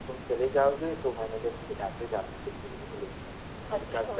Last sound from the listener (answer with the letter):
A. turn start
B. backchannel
B